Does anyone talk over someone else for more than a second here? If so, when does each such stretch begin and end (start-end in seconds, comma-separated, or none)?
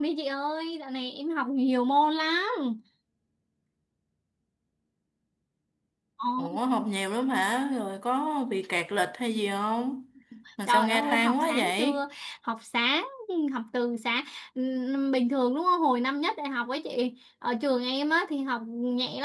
10.7-12.0